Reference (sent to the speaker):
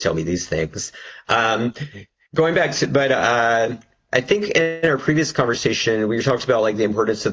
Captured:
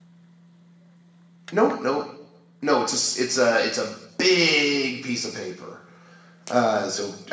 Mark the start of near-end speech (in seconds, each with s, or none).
1.5 s